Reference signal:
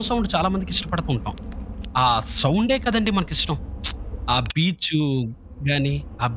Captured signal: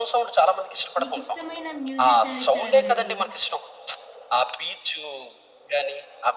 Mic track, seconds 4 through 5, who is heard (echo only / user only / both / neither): echo only